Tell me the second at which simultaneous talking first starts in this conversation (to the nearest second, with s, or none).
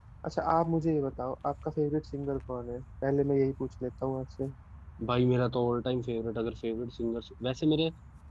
none